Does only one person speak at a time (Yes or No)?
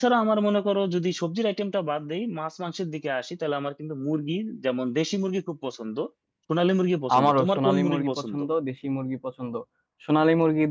No